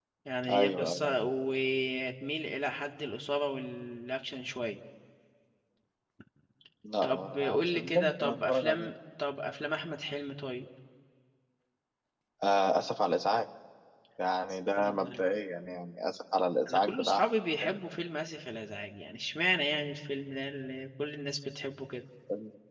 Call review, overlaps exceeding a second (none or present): present